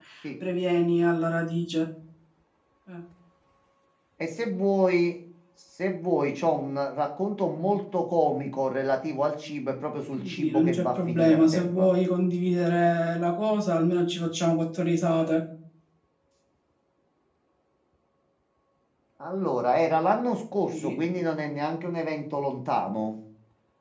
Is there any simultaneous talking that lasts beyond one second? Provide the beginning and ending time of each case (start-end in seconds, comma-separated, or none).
10.1-11.9